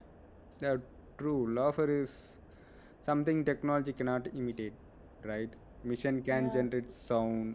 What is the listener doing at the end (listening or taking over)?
listening